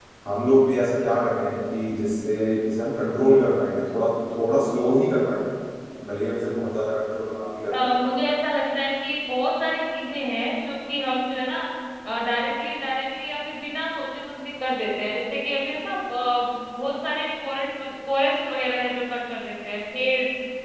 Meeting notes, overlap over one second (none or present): none